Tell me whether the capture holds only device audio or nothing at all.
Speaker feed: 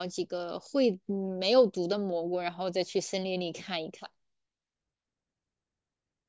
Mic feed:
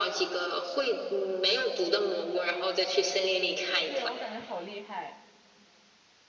No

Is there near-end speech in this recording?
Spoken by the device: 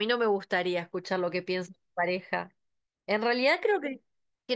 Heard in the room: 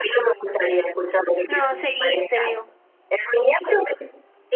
Yes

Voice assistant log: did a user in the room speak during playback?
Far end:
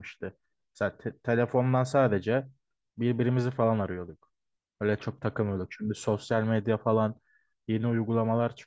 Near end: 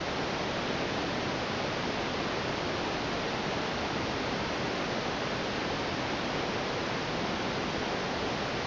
No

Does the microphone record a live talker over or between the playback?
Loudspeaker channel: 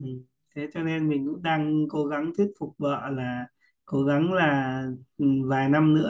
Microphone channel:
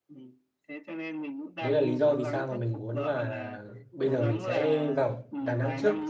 Yes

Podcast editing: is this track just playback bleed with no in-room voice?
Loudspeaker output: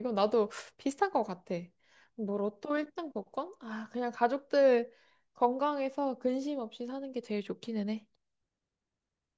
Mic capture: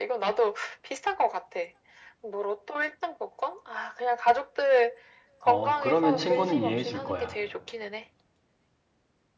No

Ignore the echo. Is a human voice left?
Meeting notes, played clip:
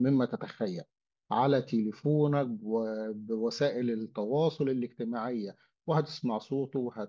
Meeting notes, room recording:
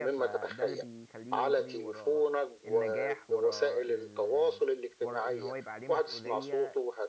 Yes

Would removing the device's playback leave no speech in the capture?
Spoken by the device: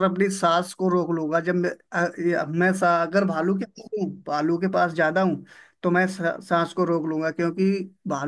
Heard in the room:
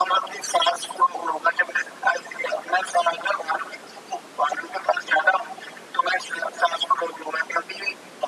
Yes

